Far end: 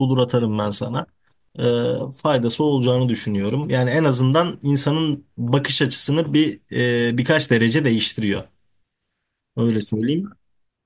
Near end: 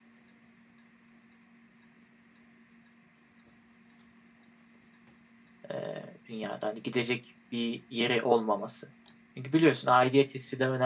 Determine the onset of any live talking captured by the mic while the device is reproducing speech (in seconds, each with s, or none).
5.7 s